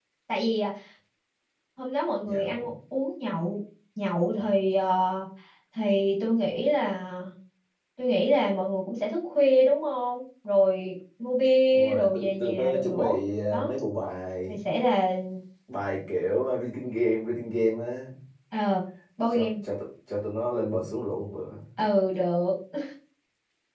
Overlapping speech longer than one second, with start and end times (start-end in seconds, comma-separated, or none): 11.7-13.1